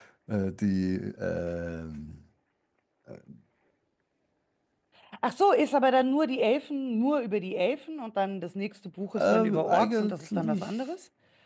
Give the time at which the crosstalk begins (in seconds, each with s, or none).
9.2 s